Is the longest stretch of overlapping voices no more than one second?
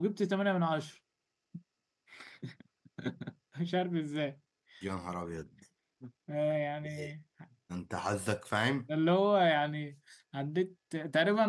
Yes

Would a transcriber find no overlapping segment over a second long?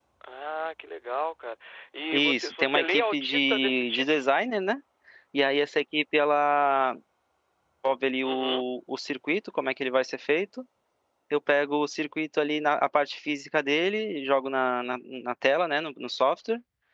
No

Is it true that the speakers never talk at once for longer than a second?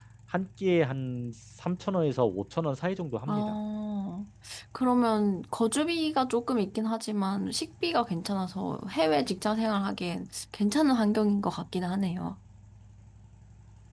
Yes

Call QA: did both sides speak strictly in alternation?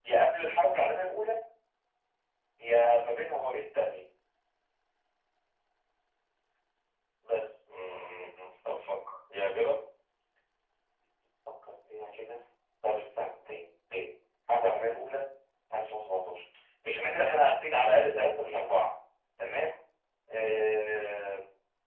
Yes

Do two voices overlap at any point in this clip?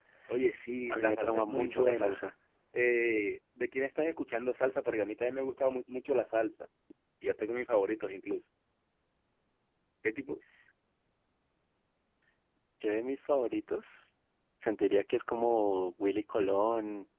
Yes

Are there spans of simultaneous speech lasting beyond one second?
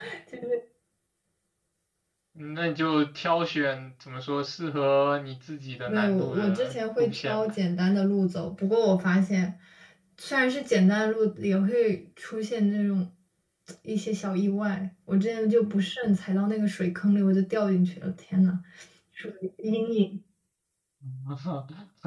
Yes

